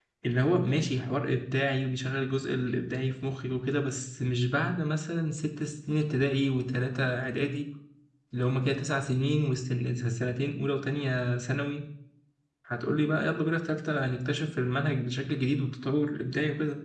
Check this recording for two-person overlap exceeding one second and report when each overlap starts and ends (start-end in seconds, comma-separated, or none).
none